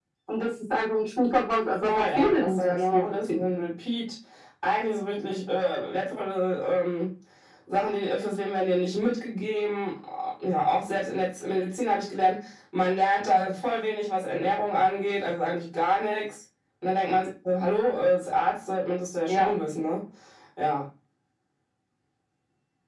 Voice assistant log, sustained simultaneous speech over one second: present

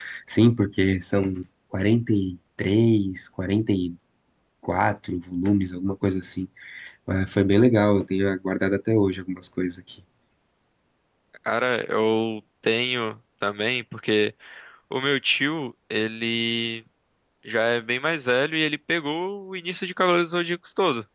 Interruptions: none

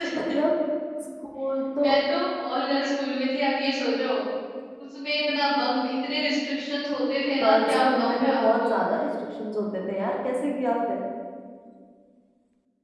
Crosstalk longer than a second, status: present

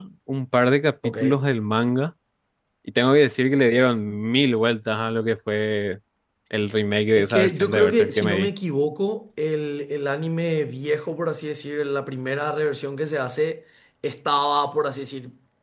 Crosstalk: present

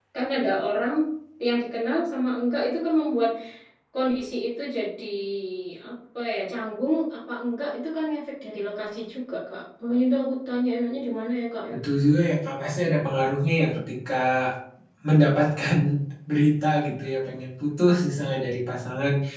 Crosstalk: none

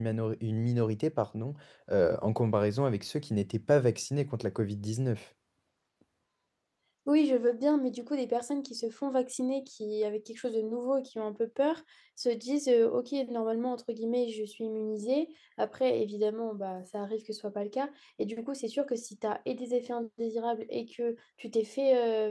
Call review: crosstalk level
none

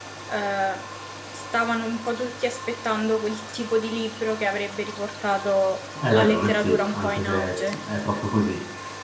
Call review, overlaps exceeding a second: present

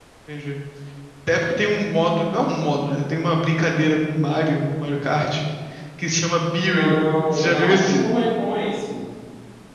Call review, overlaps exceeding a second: present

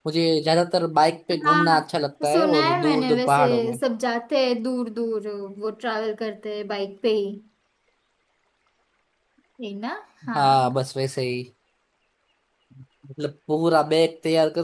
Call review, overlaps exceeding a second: present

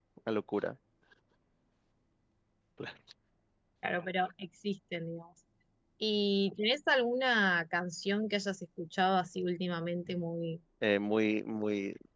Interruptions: none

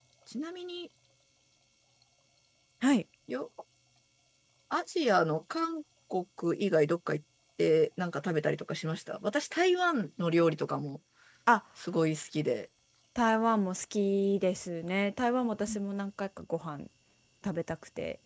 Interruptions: none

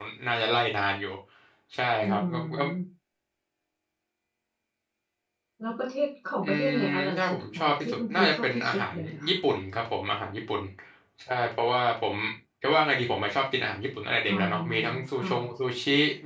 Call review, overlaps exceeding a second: present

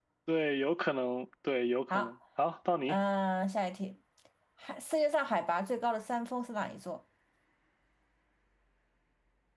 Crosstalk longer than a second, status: none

